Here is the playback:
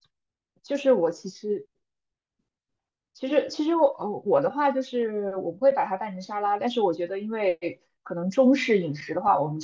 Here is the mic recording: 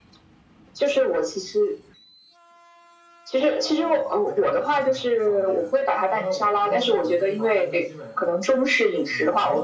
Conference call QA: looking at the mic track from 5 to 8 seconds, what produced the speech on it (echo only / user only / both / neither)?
both